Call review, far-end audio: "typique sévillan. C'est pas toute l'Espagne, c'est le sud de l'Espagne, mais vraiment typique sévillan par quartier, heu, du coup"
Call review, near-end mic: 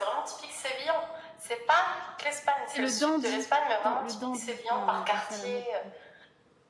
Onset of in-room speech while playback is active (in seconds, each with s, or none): 2.7 s